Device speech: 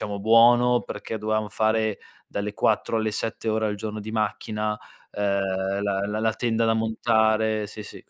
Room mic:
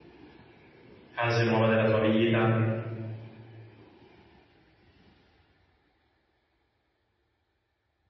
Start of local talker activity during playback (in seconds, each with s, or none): 1.1 s